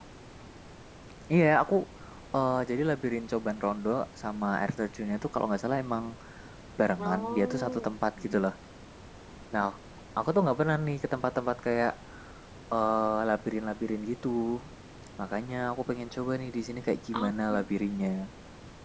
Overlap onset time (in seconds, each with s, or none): 7.0 s